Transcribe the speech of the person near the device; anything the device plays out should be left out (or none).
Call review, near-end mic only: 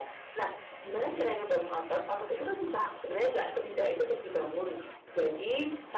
none